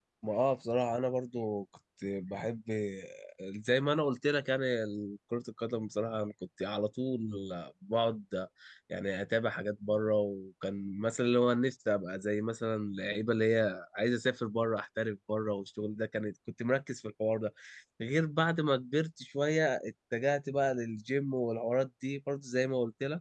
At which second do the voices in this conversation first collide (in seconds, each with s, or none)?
none